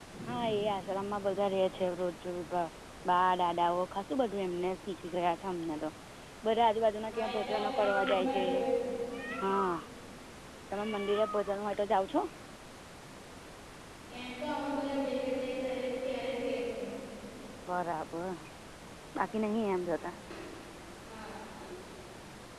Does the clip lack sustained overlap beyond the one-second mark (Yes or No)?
No